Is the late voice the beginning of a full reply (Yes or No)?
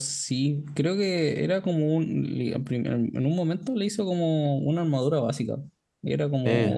No